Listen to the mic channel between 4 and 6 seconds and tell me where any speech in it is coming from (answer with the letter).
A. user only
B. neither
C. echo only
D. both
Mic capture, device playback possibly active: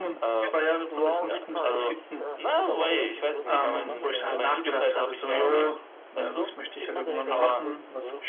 D